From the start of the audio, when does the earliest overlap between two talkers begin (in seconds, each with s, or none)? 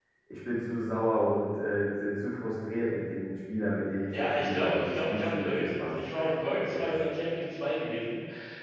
4.1 s